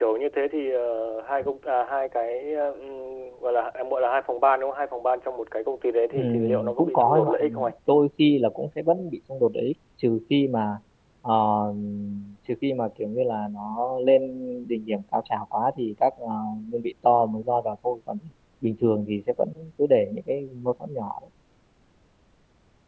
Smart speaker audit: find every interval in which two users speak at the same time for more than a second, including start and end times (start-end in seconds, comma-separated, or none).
6.1-7.7